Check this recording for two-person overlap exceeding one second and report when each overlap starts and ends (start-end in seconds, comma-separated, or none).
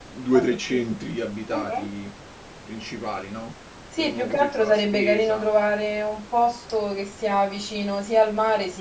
4.0-5.5